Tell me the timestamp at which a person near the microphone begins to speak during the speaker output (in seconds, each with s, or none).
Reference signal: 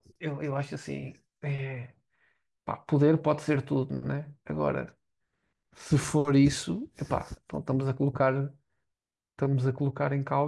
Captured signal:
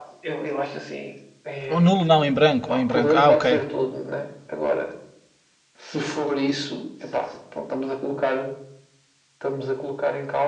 1.7 s